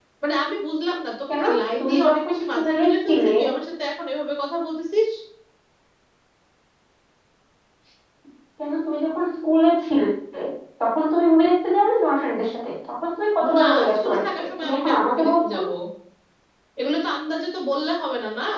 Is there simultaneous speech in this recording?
Yes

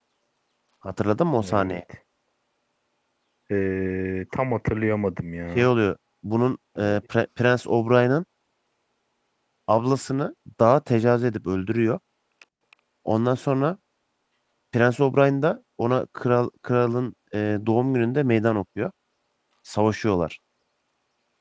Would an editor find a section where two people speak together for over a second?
No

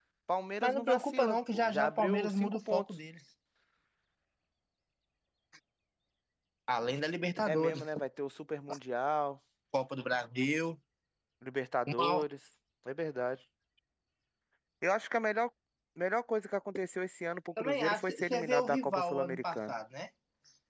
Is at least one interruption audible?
Yes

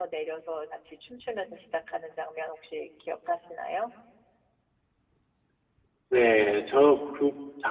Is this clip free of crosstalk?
Yes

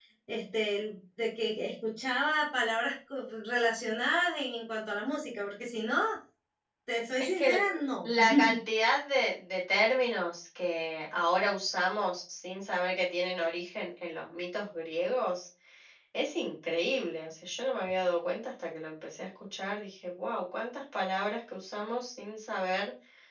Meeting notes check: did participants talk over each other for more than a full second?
No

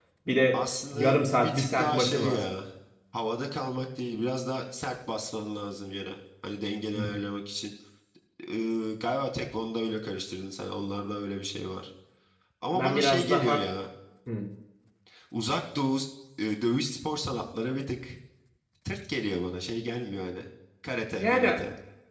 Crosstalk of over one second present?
Yes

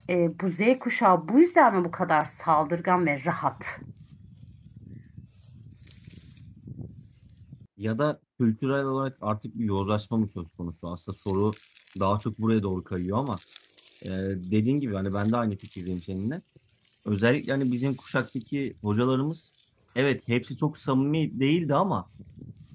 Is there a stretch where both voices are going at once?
No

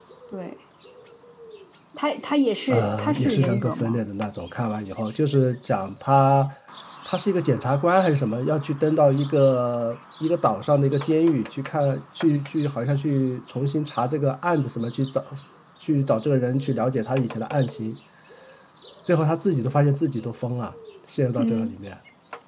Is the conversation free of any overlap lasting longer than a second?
No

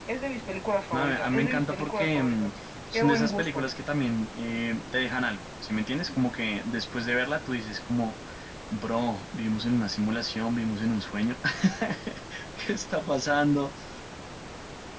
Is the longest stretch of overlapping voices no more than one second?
No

